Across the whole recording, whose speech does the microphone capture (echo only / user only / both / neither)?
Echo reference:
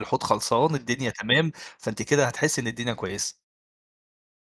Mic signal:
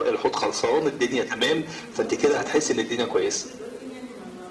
both